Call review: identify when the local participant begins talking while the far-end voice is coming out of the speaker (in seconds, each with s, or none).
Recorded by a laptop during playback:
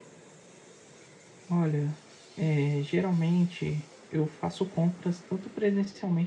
1.5 s